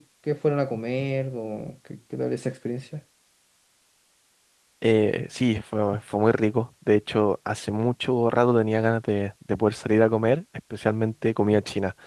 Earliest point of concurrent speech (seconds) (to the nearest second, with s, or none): none